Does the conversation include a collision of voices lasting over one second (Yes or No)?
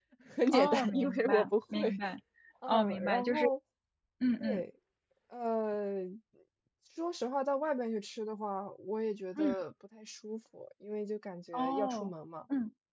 Yes